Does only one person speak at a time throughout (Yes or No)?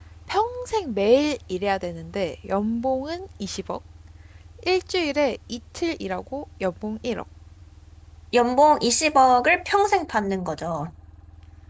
Yes